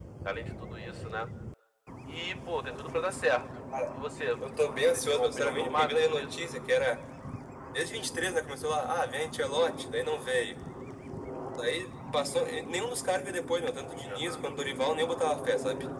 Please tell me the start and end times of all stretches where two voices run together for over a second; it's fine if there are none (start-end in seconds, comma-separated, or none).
5.1-6.3